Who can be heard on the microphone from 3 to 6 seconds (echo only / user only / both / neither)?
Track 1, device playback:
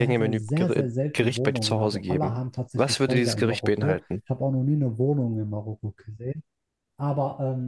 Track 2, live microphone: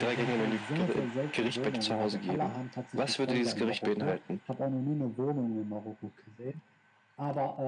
echo only